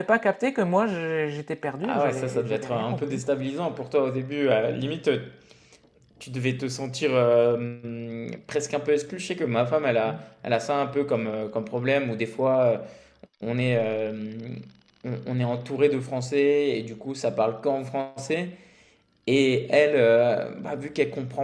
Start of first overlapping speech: 1.8 s

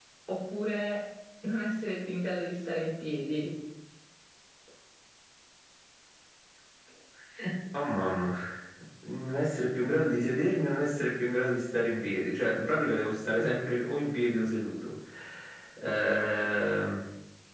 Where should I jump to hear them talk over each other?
none

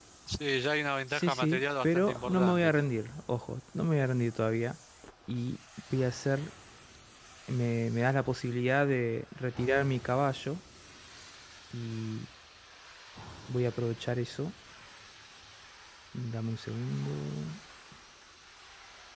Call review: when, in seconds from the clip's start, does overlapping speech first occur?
1.1 s

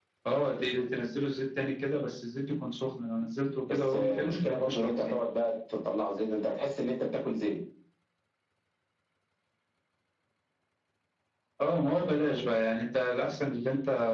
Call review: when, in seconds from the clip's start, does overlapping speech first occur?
3.7 s

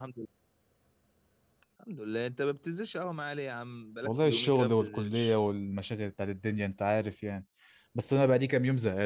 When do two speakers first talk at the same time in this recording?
4.0 s

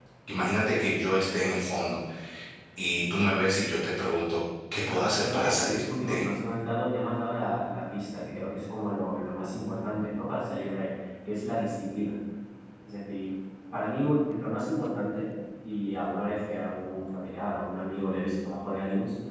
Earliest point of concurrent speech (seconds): 4.9 s

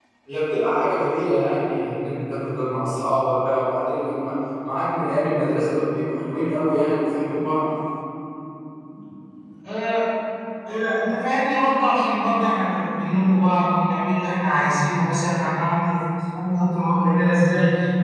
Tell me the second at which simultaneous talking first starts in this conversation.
none

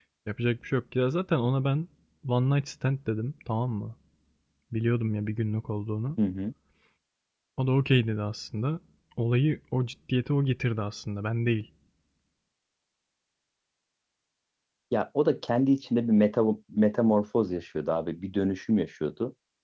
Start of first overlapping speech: none

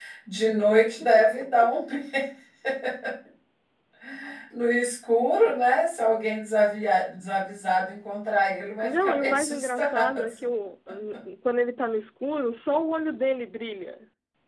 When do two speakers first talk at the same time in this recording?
8.8 s

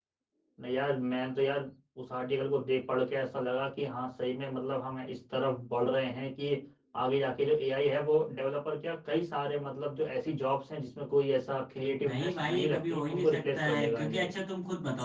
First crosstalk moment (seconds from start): 12.0 s

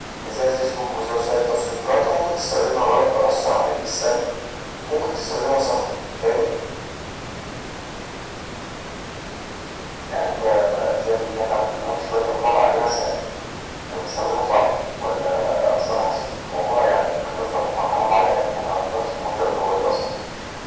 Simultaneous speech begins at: none

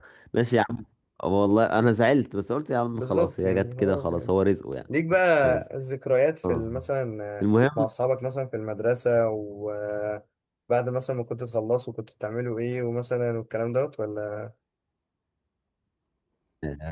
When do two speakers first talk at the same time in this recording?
3.0 s

